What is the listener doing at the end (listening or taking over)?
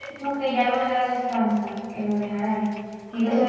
taking over